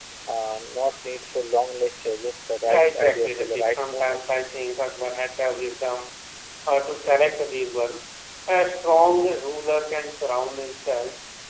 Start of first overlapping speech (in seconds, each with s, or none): 2.6 s